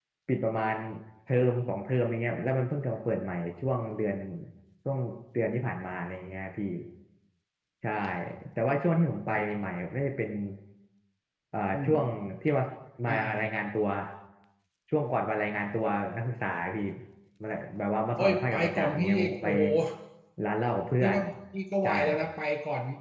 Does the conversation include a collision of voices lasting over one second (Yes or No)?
Yes